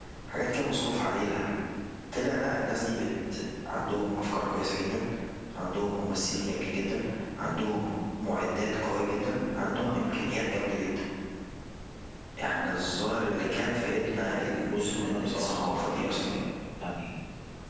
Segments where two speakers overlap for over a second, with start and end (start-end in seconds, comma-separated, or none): 14.6-16.3